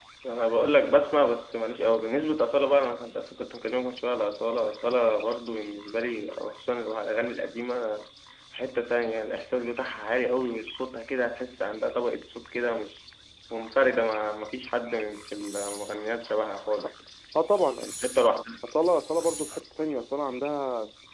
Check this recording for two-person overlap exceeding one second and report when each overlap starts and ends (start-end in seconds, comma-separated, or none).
none